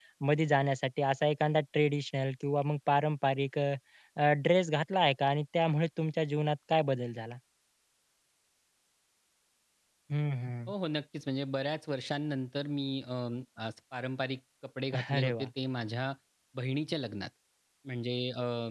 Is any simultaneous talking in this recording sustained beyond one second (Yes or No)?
No